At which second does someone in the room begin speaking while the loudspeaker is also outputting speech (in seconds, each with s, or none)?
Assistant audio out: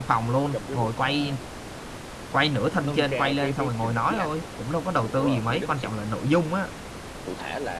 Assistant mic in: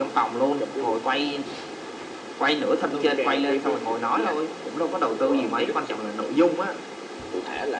none